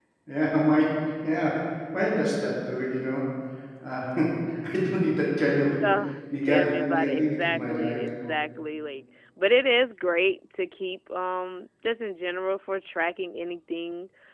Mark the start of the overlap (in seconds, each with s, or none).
6.4 s